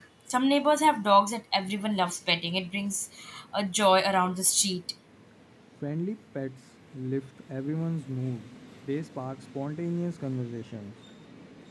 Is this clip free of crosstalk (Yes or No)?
Yes